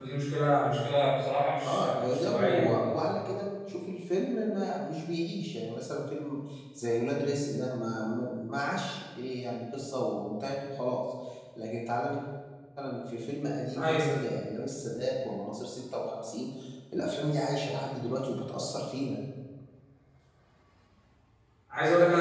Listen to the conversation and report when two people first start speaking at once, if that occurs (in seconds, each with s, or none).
1.6 s